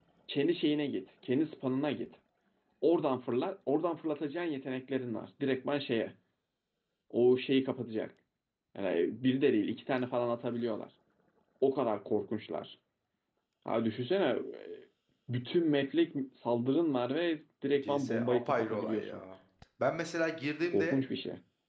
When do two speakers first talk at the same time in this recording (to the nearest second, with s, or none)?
18 s